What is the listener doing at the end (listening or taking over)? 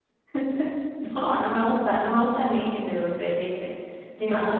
taking over